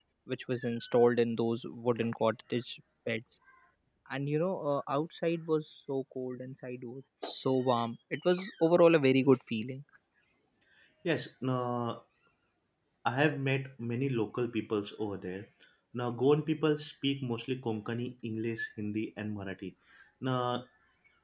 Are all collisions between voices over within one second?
Yes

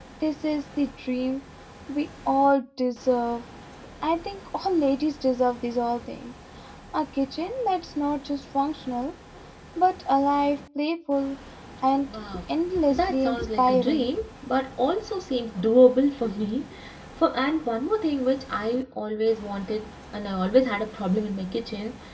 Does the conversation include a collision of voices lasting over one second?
Yes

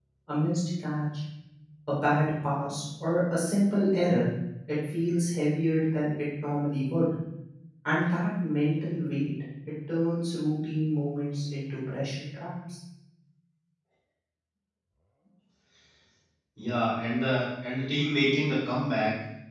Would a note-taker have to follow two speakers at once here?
No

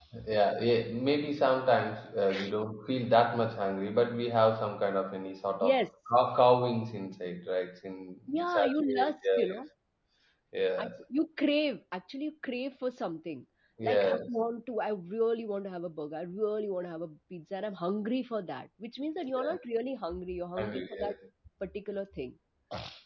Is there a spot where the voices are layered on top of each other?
Yes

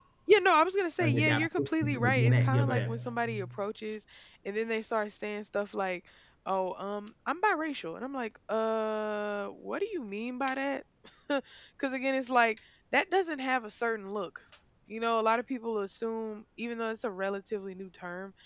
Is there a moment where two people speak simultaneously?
Yes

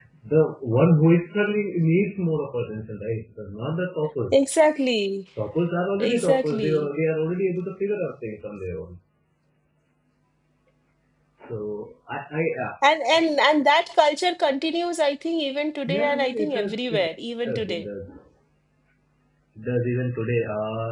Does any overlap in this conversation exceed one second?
Yes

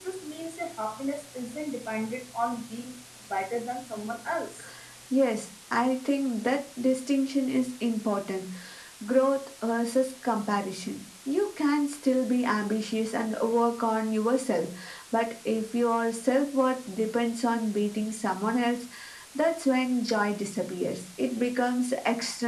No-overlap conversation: Yes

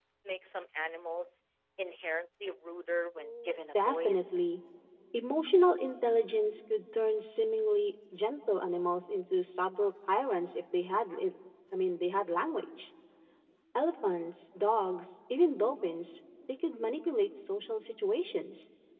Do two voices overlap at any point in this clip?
Yes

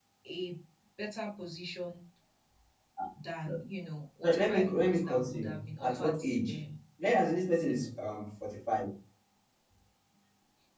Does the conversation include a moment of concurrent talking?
Yes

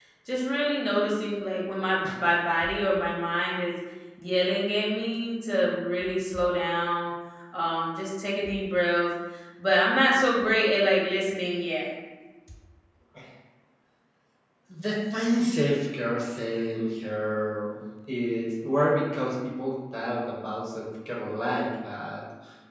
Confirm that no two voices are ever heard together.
Yes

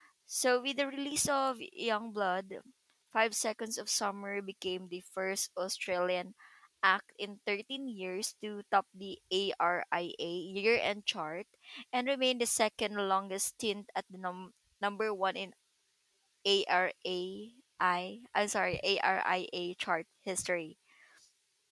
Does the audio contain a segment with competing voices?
No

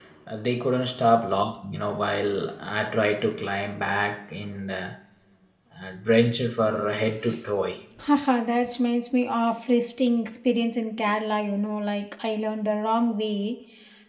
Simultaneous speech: No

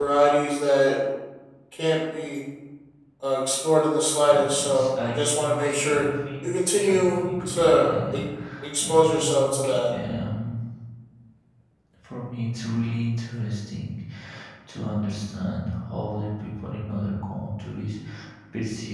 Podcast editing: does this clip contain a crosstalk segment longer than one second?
Yes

